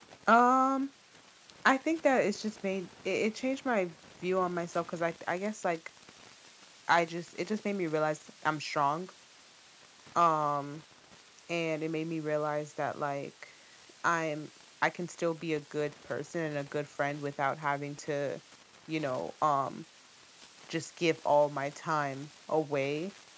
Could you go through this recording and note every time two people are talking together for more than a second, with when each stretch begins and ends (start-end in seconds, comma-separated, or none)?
none